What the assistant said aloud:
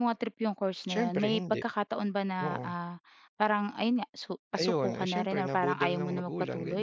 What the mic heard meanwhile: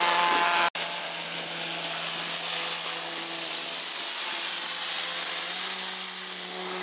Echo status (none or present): none